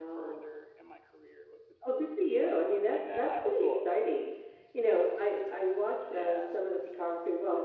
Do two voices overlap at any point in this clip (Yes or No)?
Yes